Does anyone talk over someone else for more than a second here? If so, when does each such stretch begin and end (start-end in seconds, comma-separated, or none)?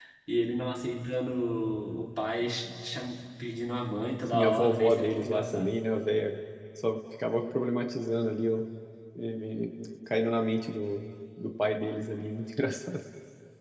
4.3-5.7